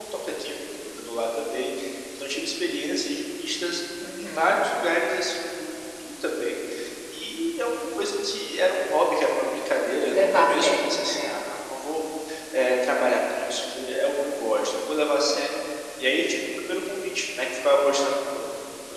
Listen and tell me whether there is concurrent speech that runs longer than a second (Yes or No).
Yes